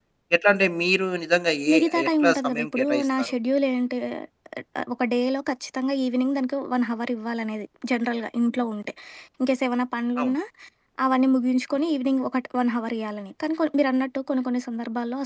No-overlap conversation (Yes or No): No